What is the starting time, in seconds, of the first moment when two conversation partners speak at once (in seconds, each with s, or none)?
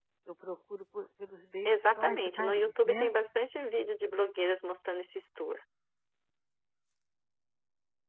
1.6 s